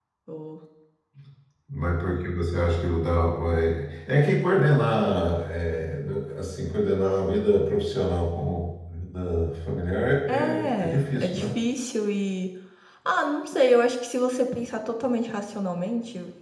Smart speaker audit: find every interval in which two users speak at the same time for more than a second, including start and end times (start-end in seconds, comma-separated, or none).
10.3-11.5